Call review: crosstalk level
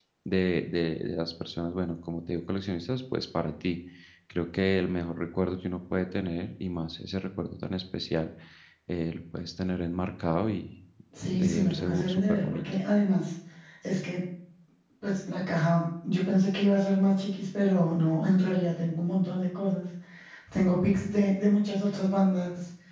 present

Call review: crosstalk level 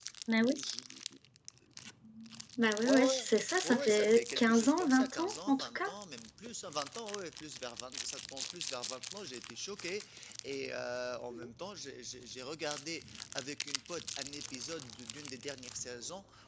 present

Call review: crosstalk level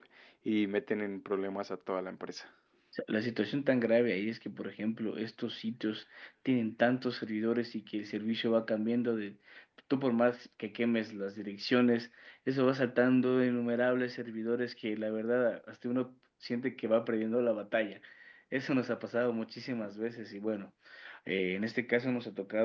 none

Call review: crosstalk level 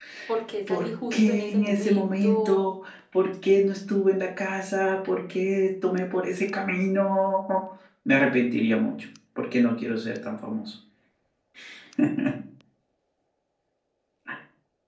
present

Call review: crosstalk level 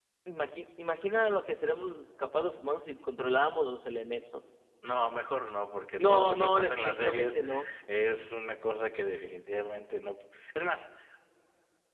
present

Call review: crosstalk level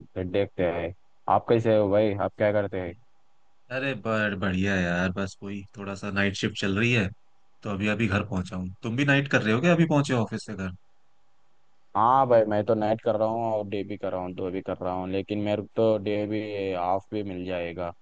none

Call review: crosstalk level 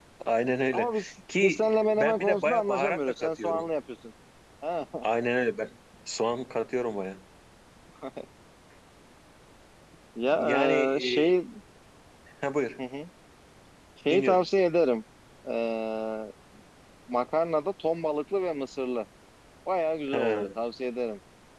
present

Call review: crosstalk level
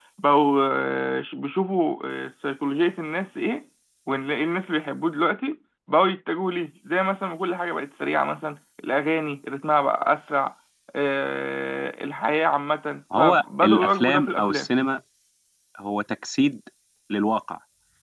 present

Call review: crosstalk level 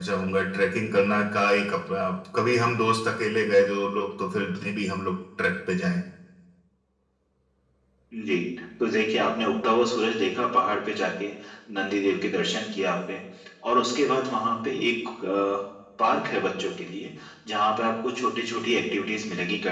none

